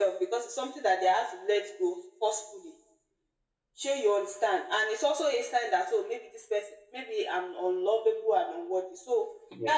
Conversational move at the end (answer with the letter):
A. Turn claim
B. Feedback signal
B